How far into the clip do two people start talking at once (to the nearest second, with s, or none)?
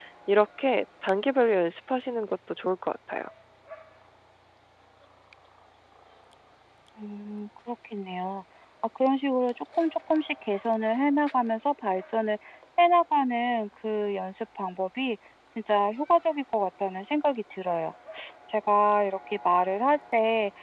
none